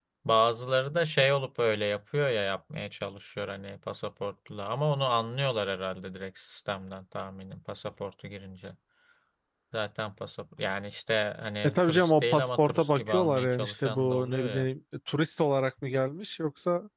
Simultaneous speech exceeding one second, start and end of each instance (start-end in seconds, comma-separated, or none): 11.6-14.7